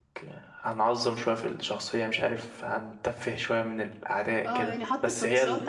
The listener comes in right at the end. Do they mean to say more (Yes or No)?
Yes